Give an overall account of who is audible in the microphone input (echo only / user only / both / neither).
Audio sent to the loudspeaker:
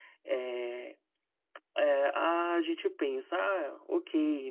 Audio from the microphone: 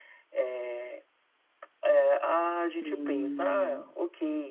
both